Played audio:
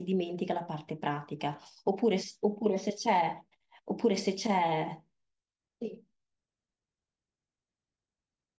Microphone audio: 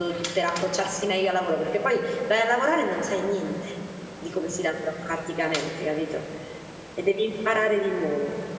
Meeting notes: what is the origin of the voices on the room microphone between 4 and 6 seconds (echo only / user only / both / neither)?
user only